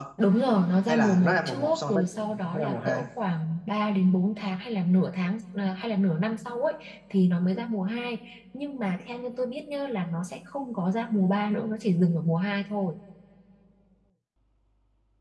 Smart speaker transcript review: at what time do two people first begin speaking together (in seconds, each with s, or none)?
0.9 s